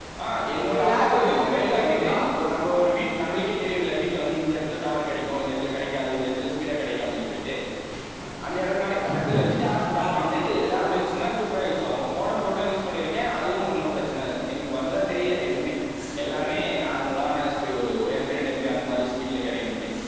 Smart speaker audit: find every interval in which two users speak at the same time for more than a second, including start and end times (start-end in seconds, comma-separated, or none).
0.7-2.1